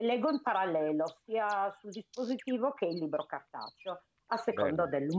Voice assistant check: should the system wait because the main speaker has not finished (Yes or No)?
Yes